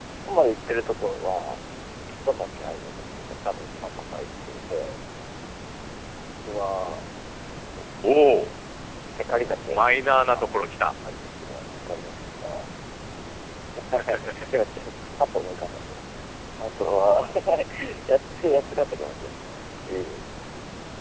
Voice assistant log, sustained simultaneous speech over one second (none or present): none